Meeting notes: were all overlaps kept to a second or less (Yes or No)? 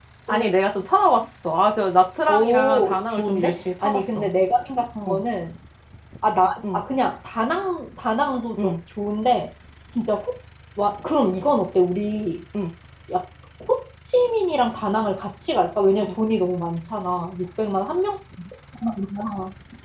No